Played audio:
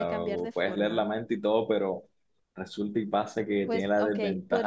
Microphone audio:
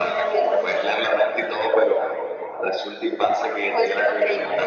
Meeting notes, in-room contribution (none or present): none